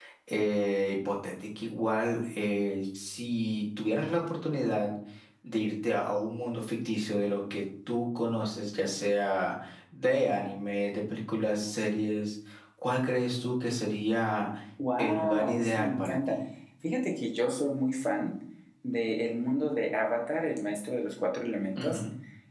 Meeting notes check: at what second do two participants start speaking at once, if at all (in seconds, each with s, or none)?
15.0 s